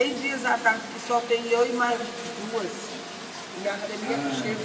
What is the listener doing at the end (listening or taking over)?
listening